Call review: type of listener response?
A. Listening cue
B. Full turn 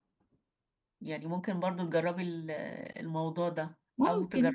A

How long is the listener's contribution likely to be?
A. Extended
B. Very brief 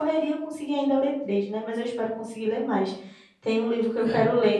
B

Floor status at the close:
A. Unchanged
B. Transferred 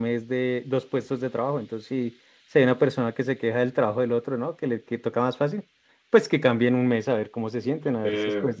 A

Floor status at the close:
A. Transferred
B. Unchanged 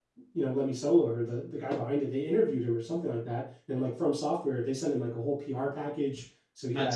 B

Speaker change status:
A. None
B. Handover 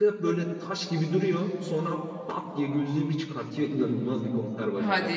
B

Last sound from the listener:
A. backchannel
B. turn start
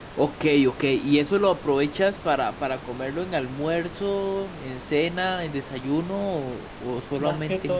B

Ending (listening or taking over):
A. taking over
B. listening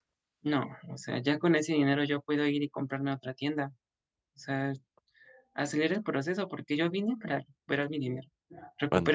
B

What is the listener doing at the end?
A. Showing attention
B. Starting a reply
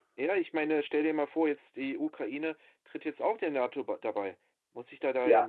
B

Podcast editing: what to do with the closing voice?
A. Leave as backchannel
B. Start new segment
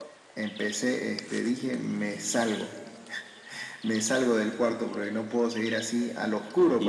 B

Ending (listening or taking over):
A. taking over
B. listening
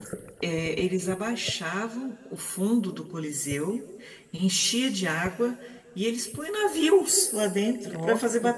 B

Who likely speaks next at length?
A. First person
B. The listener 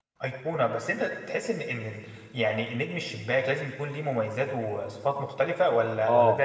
B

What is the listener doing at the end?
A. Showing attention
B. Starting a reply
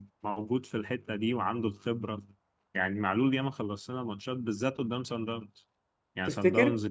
A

